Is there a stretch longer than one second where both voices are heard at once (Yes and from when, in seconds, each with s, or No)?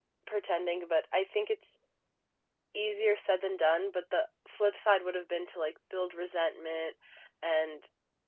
No